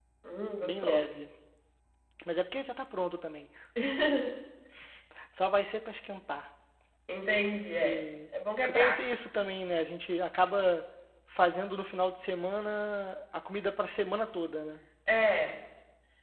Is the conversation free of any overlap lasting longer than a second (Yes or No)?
Yes